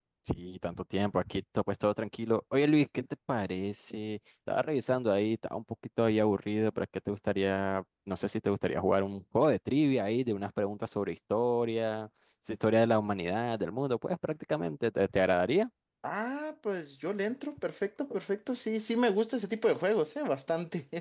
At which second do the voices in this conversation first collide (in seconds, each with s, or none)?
none